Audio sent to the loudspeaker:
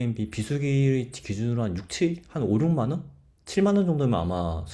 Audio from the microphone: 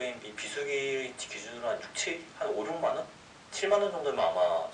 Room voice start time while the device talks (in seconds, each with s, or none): none